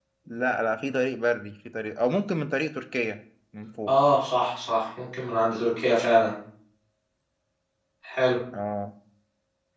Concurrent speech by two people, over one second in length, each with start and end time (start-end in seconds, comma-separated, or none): none